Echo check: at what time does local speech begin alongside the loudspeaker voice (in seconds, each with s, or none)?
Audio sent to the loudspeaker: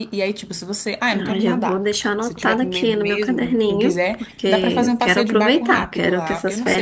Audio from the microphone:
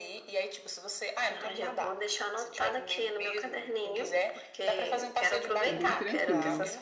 5.6 s